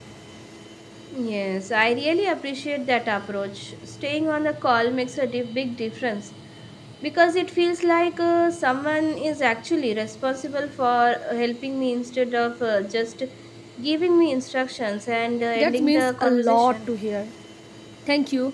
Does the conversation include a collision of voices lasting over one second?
Yes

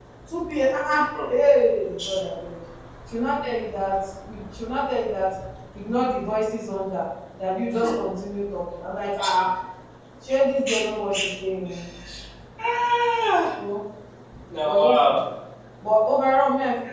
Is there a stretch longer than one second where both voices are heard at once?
No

